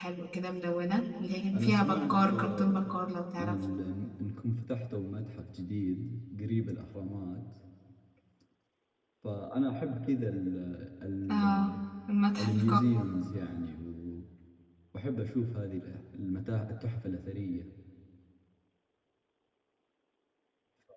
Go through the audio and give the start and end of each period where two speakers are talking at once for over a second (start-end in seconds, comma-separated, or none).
1.5-2.9